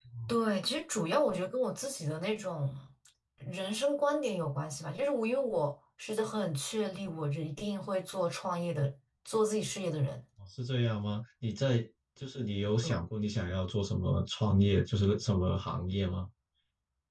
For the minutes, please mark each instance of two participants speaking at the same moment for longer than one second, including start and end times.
none

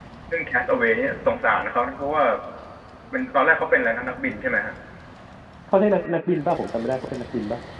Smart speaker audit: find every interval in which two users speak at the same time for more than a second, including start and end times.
none

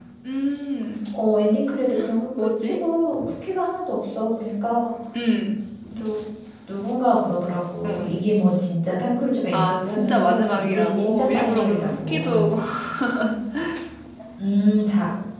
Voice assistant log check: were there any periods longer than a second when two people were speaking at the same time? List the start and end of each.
9.5-12.5

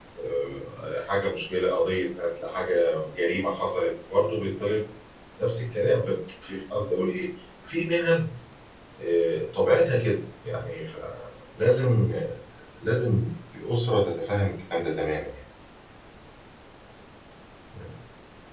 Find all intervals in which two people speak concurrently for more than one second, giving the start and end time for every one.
none

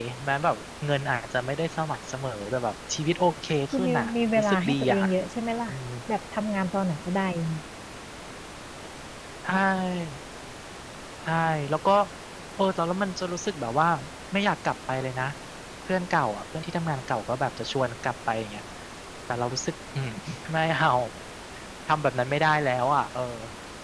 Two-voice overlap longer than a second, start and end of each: 3.7-5.0

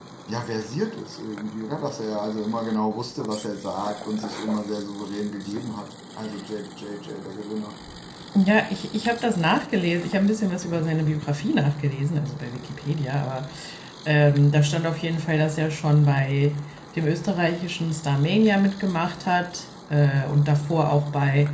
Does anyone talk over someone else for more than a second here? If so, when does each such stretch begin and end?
none

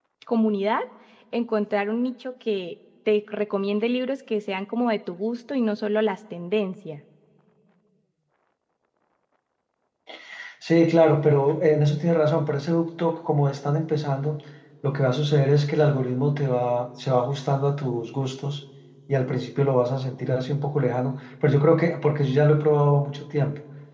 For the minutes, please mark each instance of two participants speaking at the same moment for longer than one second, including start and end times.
none

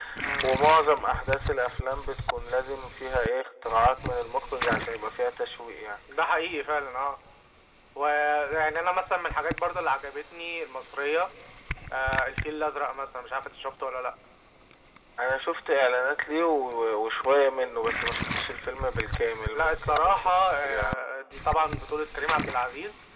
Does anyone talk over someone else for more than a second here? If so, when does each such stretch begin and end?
19.5-21.1

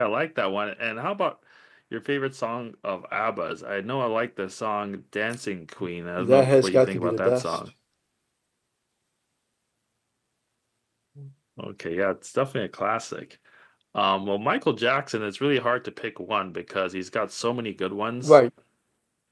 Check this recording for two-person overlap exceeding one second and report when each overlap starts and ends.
6.2-7.4

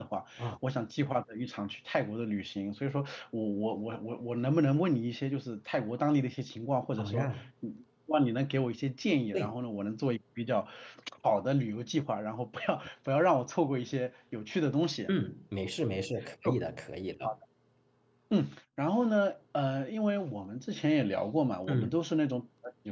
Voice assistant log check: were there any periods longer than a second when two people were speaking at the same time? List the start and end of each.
none

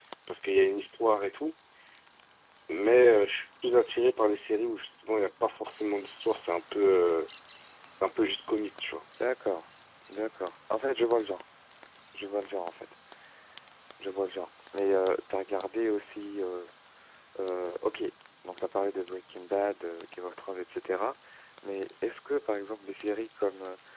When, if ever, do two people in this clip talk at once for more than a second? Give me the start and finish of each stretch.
none

